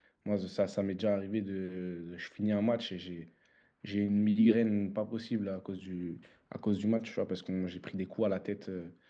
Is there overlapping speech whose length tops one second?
No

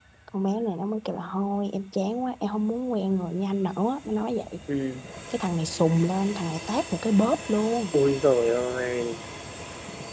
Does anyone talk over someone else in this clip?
No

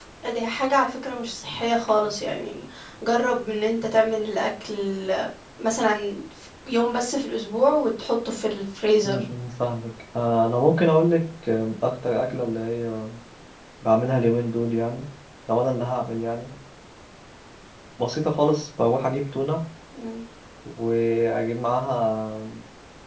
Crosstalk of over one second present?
No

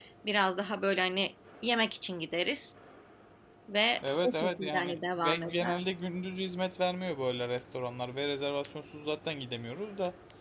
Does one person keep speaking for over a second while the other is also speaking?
Yes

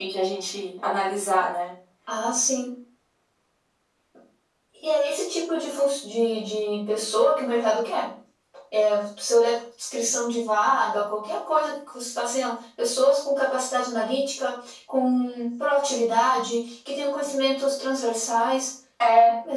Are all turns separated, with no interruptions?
Yes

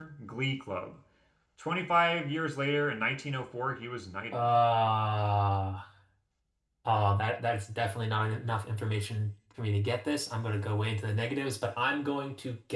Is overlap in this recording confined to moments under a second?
Yes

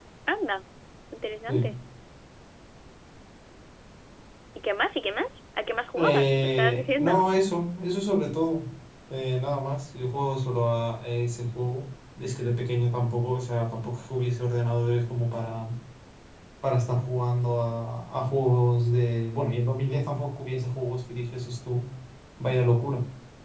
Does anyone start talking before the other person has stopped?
Yes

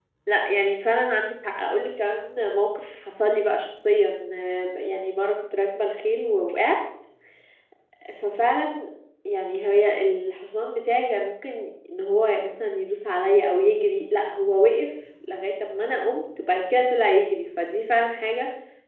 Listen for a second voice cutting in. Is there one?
No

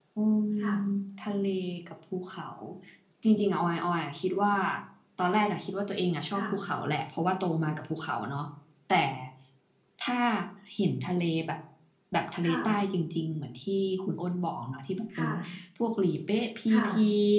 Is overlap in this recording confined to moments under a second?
Yes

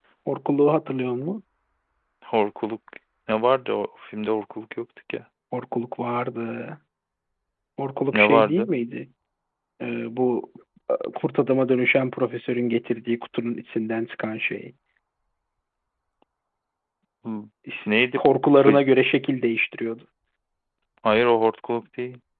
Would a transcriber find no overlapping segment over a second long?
Yes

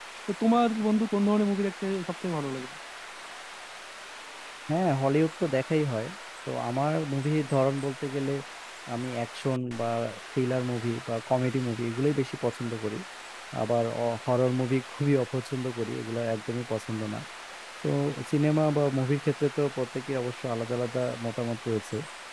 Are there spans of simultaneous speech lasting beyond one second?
No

